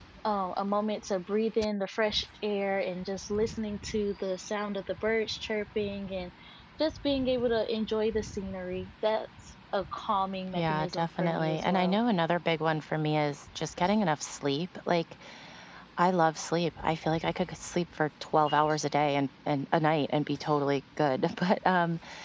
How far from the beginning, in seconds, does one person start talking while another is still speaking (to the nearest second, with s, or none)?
11 s